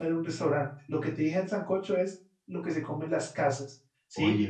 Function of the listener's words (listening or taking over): listening